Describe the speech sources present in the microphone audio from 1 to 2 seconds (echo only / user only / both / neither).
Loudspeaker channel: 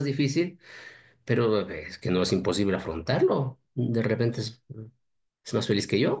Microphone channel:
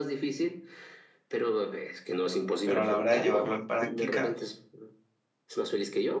echo only